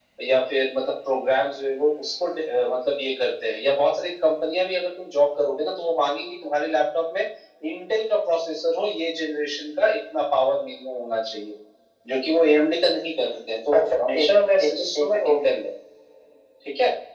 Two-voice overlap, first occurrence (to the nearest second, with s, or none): 14 s